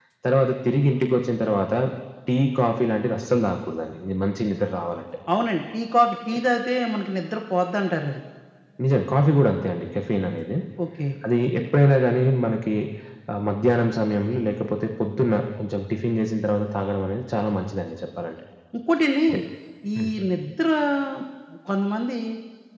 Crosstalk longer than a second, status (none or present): none